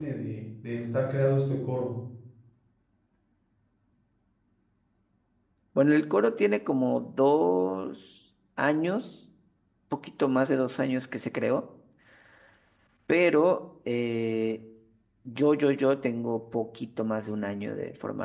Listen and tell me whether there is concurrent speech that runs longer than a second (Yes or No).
No